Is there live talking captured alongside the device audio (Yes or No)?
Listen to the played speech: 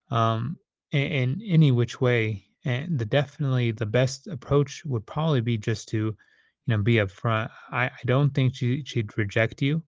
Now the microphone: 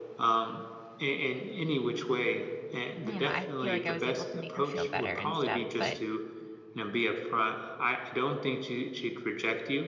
Yes